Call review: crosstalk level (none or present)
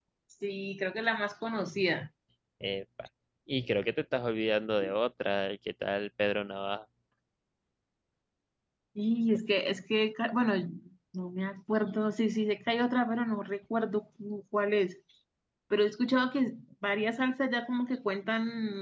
none